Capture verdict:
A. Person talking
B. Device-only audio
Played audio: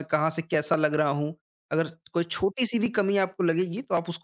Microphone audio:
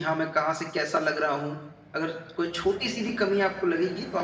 B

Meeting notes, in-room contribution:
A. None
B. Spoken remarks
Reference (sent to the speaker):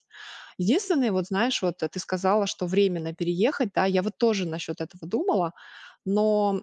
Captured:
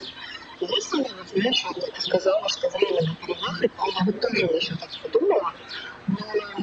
A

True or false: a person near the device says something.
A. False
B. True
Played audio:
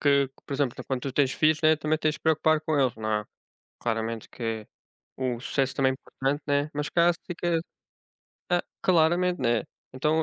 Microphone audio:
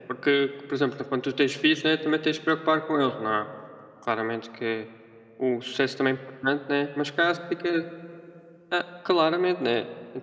A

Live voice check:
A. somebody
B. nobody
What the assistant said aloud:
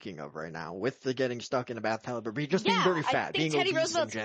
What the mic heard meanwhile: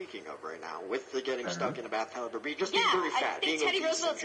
A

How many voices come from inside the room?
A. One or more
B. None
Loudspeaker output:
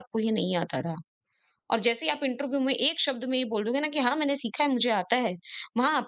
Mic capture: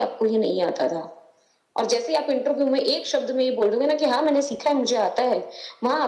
B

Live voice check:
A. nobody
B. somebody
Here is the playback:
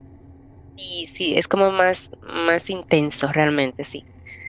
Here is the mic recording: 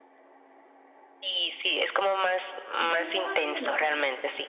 B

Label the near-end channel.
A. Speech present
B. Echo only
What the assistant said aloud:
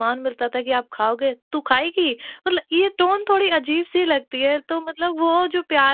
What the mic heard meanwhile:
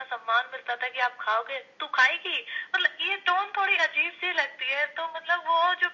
B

